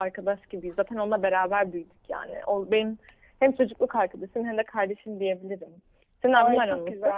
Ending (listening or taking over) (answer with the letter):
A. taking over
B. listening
A